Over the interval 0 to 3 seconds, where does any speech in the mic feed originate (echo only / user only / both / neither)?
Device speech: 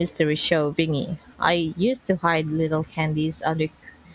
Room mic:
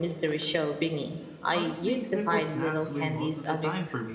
both